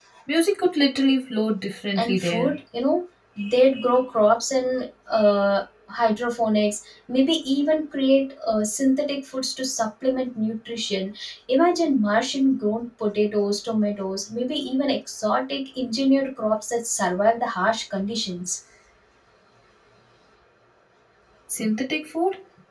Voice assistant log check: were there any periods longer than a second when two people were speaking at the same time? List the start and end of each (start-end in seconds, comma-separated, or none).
none